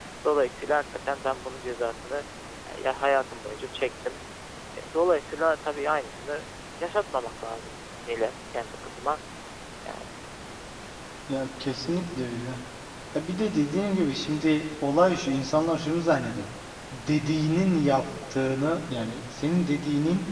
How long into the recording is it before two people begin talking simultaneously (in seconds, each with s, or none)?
none